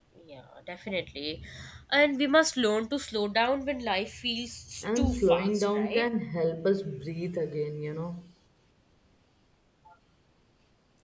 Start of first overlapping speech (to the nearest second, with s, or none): 5 s